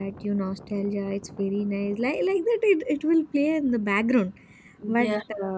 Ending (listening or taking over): listening